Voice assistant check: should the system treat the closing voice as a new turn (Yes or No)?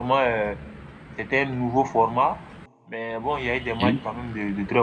No